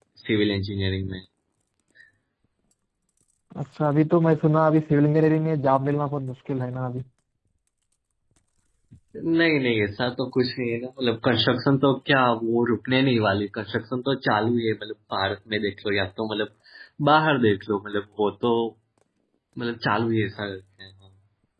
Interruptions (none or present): none